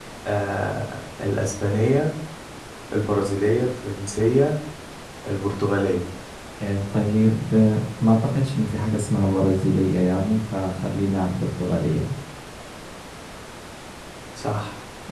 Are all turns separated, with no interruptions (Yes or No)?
Yes